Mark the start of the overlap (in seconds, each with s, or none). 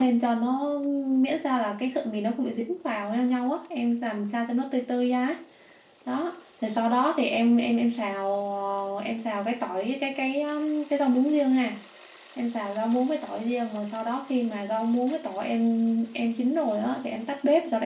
none